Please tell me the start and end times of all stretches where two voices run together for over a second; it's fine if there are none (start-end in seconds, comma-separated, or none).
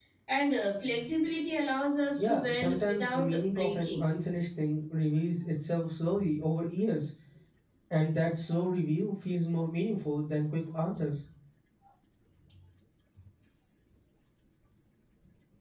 2.2-4.0